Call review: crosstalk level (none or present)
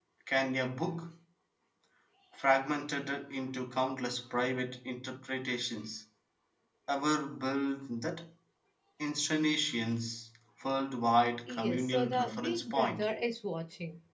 present